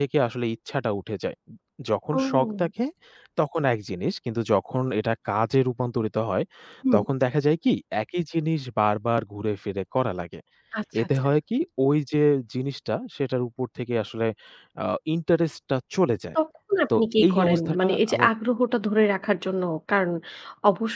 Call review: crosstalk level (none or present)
present